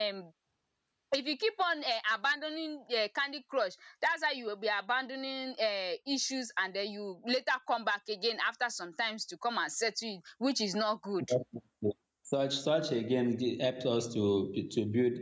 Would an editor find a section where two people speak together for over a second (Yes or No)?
No